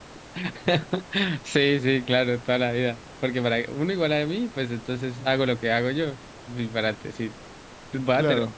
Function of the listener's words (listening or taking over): listening